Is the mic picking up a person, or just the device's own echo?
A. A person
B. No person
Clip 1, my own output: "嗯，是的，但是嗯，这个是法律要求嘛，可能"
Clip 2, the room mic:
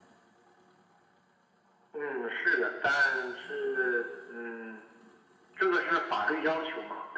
B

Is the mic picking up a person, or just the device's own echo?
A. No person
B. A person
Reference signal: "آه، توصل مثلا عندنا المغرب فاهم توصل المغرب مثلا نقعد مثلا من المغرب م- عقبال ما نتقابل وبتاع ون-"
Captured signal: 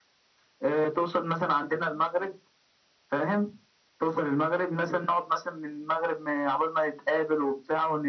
A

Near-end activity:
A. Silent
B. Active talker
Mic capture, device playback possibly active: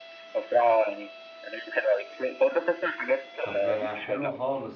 B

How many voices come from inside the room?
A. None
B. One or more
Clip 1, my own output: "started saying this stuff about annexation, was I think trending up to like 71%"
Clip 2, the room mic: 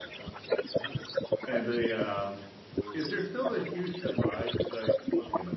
B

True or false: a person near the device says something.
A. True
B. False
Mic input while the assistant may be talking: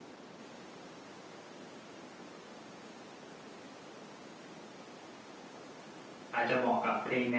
A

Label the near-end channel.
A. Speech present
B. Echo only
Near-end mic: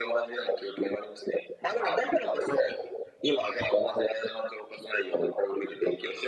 B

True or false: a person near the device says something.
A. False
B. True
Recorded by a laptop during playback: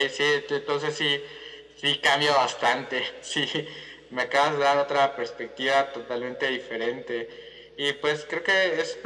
A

